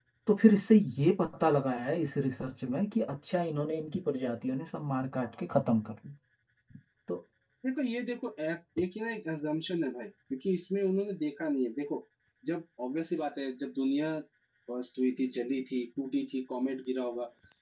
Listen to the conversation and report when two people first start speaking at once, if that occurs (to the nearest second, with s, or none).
none